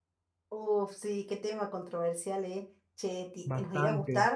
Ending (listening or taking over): listening